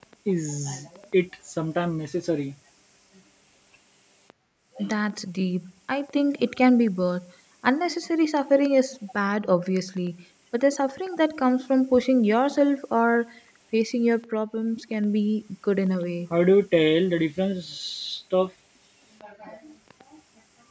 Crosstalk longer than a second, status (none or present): none